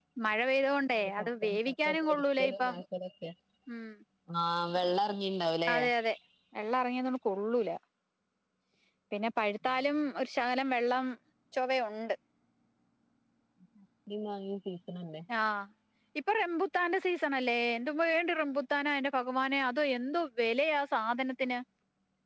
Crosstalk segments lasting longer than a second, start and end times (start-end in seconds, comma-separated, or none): 1.2-2.7